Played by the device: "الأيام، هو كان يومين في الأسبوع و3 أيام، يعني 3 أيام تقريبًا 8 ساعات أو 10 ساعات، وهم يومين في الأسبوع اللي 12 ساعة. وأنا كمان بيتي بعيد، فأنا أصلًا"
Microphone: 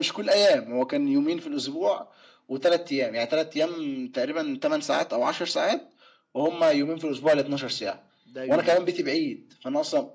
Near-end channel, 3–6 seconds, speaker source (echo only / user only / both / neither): echo only